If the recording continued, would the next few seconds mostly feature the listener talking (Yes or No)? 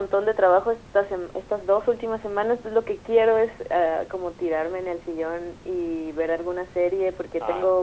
No